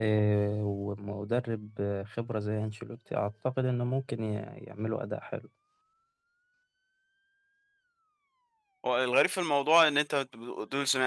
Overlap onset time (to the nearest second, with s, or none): none